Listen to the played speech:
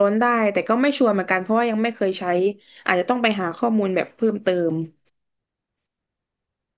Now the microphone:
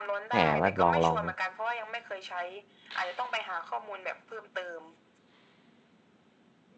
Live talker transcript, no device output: แหมว่าลองลอง

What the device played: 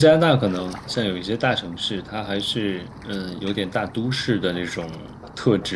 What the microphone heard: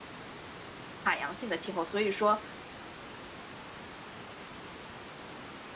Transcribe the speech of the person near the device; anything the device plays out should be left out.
海洋性的气候，所以说，

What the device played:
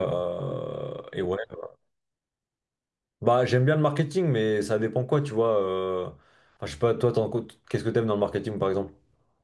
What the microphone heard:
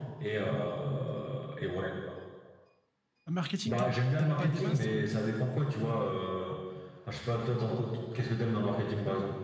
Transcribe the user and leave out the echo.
Marketing, t'aimes, t'aimes pas des masses, toi?

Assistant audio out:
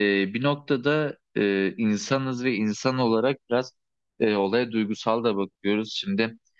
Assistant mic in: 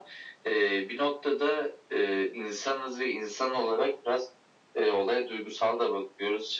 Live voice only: none

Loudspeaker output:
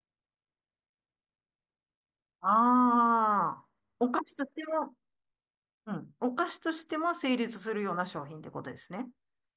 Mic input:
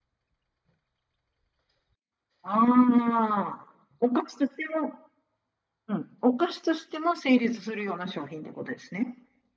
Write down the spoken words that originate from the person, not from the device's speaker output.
none

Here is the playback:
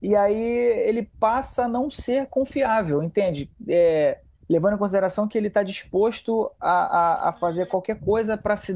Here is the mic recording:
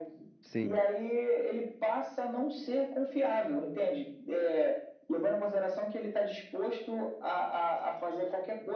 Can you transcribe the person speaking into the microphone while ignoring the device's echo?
sim.

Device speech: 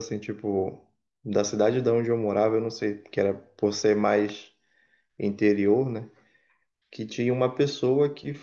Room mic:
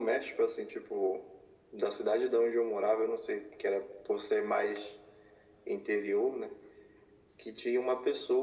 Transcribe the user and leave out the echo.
none

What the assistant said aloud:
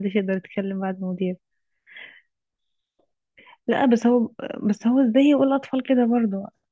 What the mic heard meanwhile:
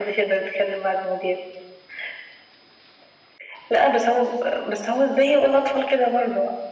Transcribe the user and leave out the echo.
none

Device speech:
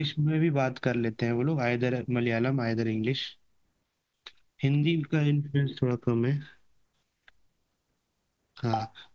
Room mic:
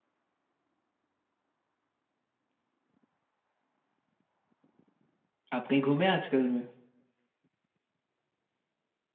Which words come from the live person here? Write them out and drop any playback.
आप कहीं घूमे आजकल में

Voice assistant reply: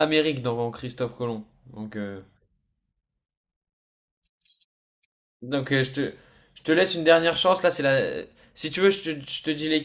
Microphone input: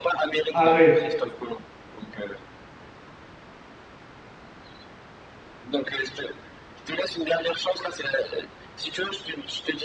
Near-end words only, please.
Arrête.

